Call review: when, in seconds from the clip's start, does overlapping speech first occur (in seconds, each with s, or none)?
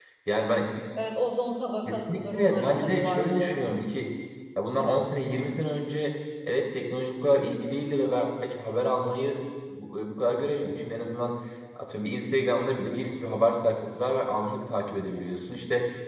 1.9 s